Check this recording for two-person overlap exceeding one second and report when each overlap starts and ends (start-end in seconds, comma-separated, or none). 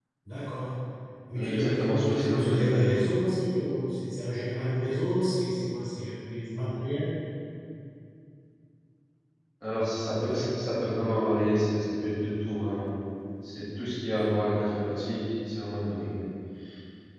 1.4-2.9